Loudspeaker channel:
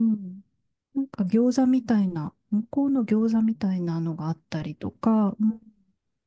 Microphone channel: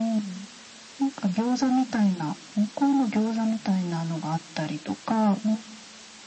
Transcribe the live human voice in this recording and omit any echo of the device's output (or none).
none